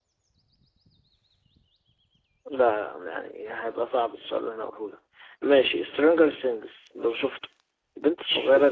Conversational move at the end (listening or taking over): listening